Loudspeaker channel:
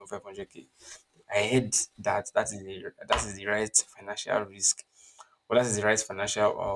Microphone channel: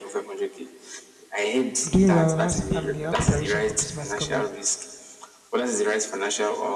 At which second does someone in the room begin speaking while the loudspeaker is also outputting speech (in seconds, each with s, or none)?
1.8 s